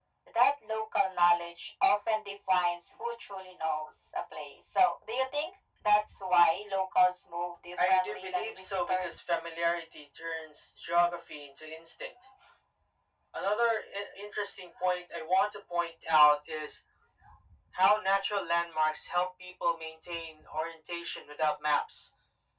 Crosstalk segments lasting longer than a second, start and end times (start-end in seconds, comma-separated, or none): 7.8-9.4